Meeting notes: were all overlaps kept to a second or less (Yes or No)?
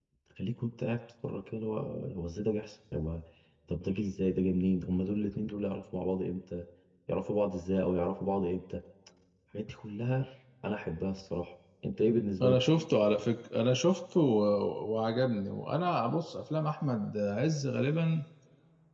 Yes